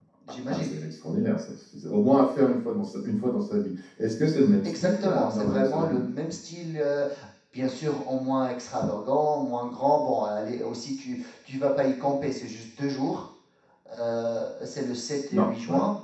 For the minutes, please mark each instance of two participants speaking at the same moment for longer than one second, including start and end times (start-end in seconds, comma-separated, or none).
4.6-6.1